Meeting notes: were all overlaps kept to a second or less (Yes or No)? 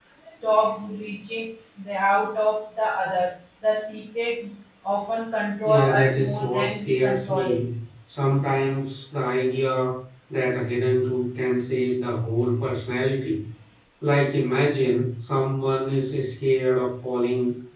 No